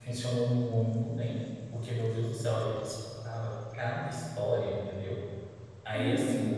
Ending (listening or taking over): listening